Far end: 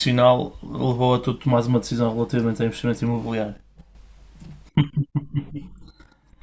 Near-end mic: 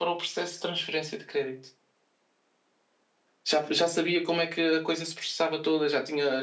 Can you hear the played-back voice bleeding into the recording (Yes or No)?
No